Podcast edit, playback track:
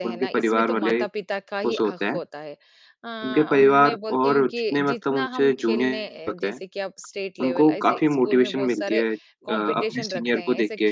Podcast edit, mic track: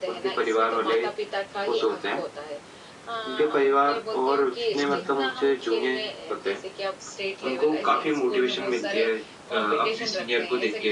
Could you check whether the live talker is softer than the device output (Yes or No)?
Yes